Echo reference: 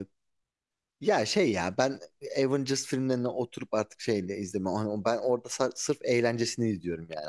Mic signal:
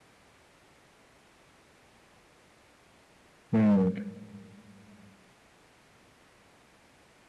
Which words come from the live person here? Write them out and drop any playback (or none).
hmm.